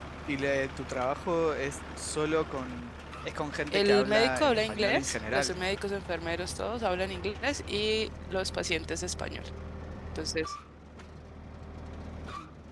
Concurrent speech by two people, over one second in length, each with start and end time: 3.7-5.5

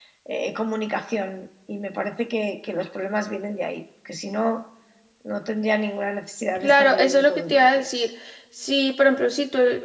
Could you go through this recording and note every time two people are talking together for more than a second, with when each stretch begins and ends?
6.5-8.0

